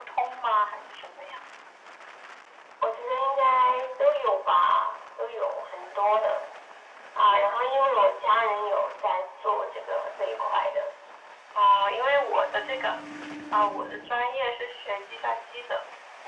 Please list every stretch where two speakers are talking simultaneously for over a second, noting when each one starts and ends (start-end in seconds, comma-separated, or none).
none